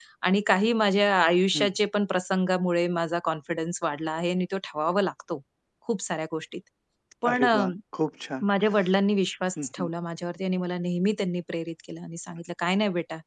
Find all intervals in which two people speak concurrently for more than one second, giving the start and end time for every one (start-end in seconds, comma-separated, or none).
none